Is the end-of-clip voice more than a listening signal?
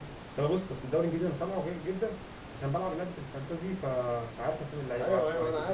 Yes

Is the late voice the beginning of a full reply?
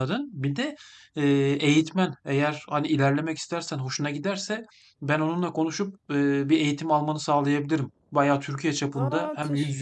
No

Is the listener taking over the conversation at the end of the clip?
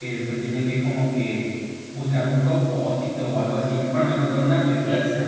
No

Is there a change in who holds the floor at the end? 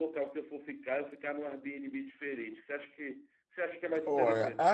Yes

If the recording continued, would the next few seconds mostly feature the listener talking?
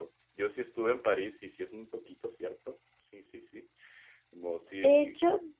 Yes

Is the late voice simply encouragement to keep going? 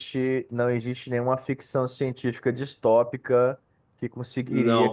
Yes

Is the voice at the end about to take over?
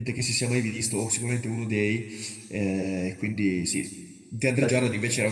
No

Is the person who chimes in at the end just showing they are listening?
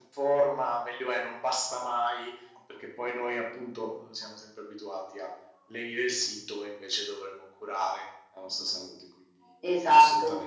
No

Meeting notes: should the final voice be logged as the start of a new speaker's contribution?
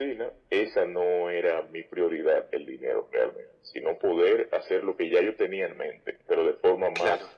No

